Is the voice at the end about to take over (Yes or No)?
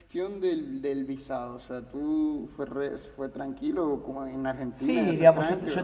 Yes